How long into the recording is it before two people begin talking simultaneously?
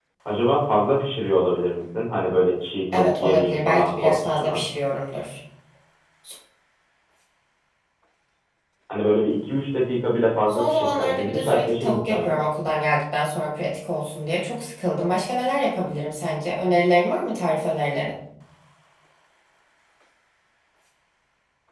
2.9 s

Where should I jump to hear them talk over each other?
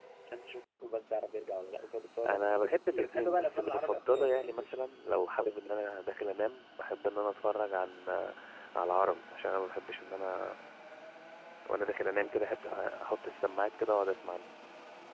2.2 s

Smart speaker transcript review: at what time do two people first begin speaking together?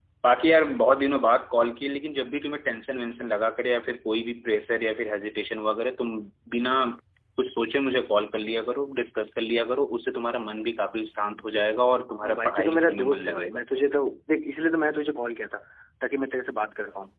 12.2 s

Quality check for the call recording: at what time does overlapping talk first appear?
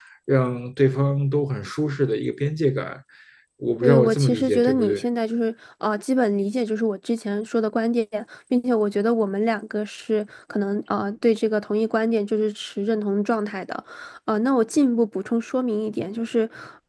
3.8 s

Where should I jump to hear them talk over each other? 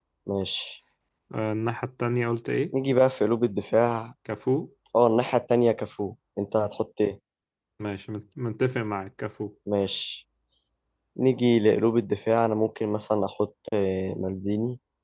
none

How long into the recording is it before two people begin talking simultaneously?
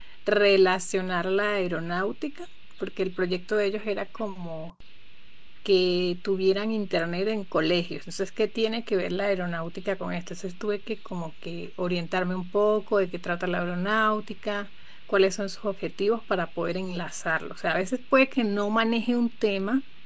none

